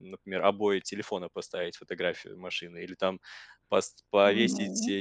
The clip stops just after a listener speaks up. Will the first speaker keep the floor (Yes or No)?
Yes